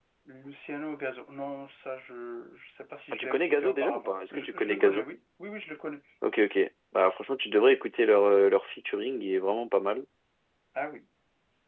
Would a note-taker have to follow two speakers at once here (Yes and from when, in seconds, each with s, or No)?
Yes, from 3.1 s